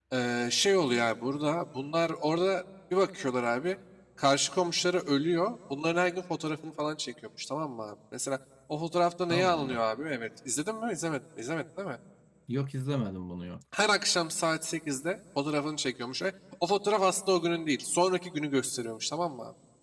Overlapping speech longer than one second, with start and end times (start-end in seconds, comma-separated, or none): none